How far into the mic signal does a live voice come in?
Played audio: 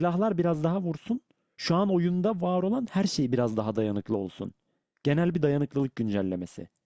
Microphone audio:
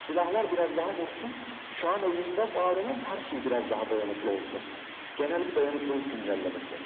none

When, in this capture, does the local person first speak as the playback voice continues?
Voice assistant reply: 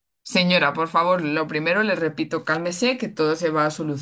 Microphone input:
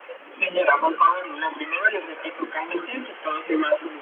none

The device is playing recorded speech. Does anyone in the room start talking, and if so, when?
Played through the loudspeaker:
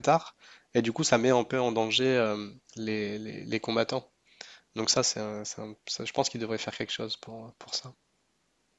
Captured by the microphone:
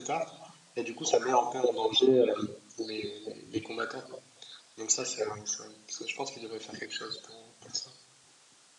none

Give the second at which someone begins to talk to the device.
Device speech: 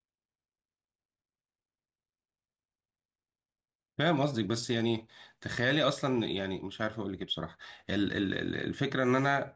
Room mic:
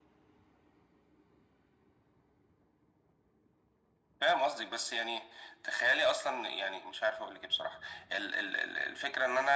none

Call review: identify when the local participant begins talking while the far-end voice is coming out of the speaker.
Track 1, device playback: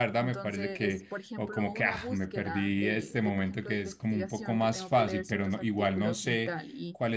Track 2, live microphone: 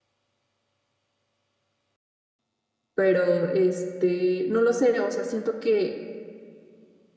2.9 s

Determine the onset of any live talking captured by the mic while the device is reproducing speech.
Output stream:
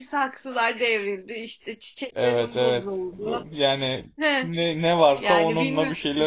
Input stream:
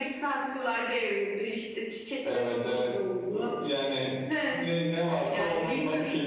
none

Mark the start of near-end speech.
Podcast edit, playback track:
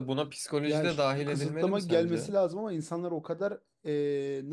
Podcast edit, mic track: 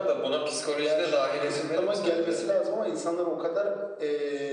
none

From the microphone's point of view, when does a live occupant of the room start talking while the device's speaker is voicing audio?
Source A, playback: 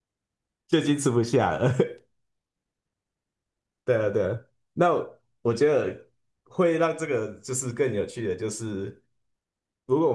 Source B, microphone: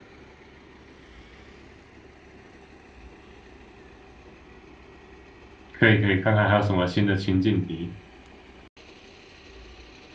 5.7 s

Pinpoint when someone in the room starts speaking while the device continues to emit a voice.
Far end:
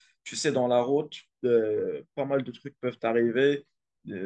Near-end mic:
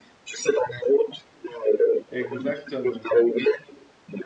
2.1 s

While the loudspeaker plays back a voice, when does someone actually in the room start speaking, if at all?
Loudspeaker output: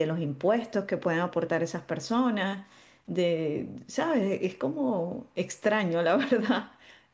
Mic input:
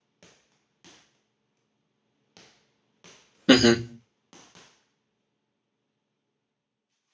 3.5 s

